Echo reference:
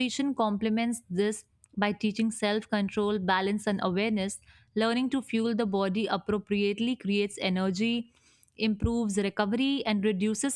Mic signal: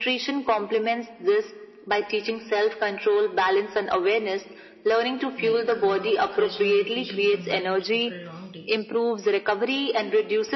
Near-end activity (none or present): present